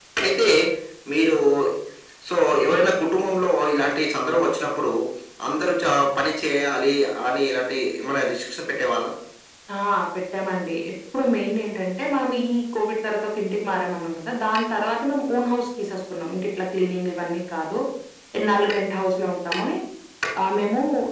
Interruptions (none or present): none